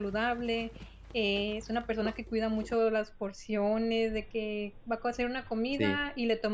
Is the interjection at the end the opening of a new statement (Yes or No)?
No